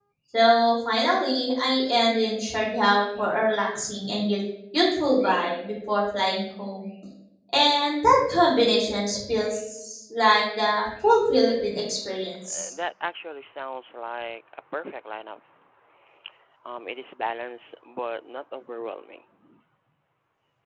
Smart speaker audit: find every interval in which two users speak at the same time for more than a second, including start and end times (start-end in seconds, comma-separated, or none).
none